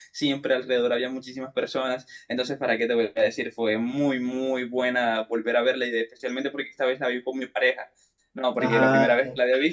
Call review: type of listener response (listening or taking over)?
listening